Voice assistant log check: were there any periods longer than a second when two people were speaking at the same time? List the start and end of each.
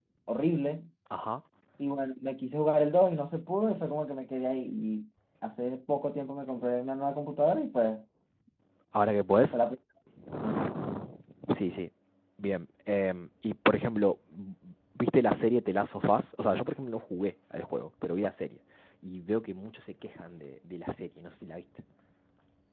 none

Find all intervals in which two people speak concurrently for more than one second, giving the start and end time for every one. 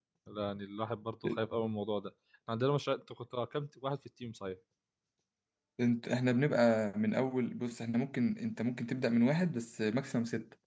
none

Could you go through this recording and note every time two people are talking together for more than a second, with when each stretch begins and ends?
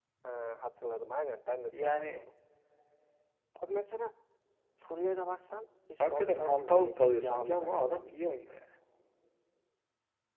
6.0-7.8

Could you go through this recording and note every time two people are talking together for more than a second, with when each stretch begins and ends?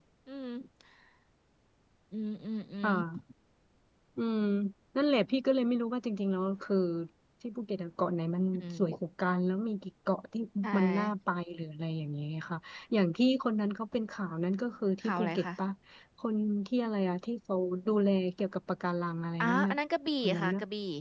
none

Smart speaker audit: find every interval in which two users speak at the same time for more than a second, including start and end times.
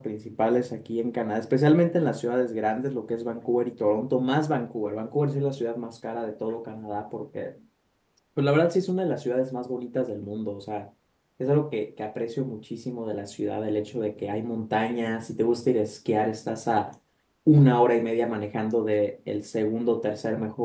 none

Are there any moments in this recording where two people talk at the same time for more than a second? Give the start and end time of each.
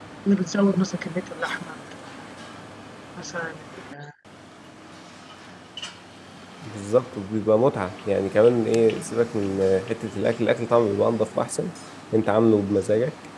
none

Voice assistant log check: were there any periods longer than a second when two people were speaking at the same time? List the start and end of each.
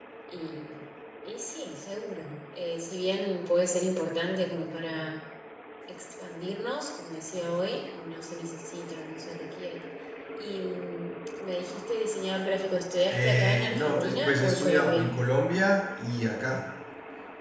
13.1-15.1

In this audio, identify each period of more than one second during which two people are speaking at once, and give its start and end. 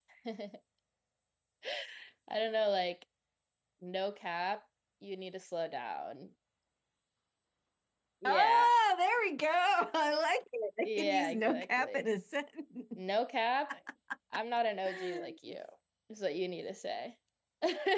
10.8-12.1

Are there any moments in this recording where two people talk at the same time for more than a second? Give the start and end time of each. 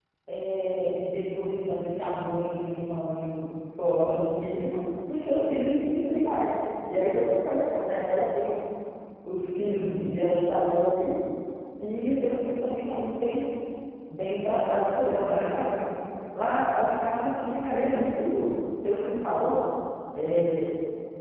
14.5-15.9

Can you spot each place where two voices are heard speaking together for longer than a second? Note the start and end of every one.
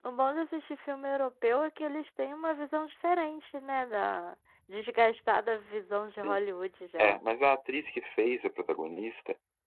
none

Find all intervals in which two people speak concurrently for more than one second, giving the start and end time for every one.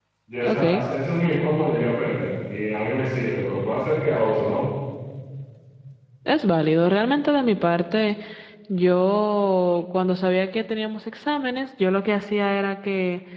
none

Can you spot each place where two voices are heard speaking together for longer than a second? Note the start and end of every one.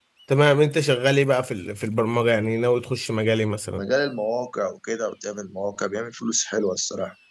none

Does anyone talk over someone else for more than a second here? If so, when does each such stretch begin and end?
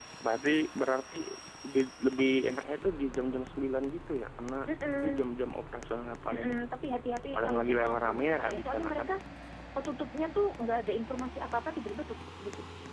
7.3-9.1

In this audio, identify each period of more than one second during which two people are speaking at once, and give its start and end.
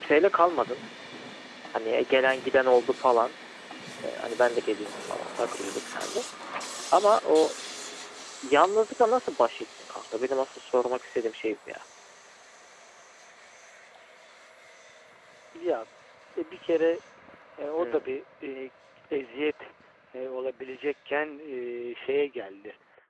none

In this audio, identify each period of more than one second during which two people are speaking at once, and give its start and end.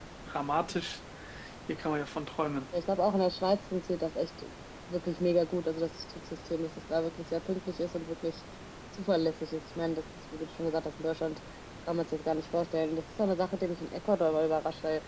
none

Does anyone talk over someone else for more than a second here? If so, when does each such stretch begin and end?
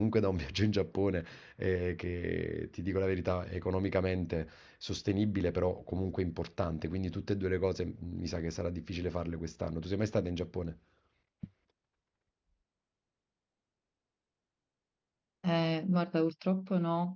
none

